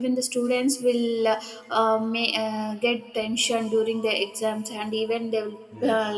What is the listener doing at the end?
listening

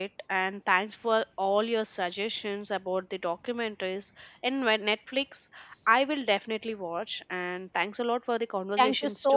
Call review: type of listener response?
taking over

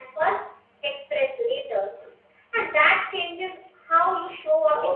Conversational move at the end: listening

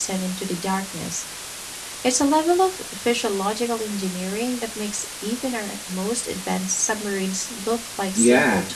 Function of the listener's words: taking over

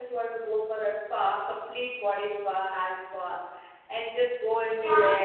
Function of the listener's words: taking over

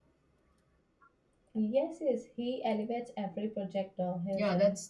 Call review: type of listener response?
taking over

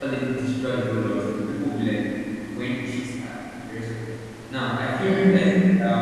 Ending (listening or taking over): listening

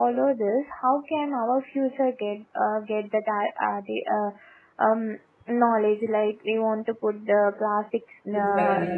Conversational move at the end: listening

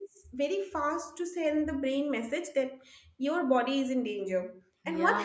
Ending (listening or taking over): listening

